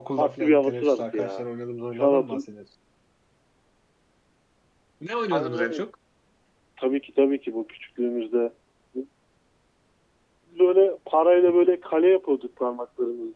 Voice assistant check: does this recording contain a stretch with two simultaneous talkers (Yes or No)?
Yes